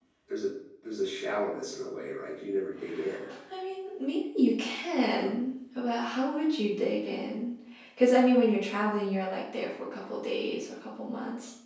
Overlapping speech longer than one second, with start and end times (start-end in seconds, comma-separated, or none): none